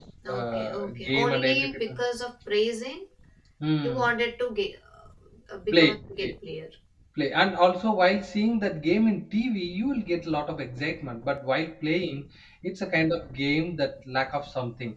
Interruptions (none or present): present